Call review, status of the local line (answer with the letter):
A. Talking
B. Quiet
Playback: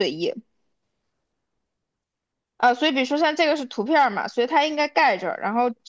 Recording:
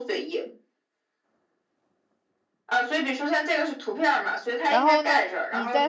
A